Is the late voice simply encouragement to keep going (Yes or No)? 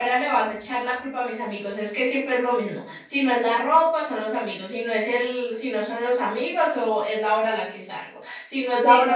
Yes